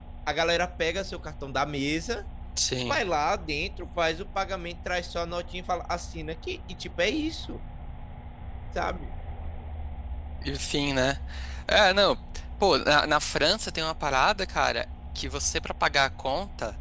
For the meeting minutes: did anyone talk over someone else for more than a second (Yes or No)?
No